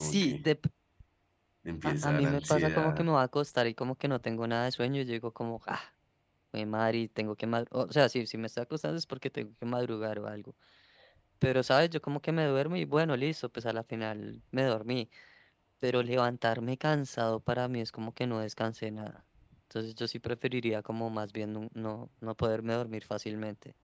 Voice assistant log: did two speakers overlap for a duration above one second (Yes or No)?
Yes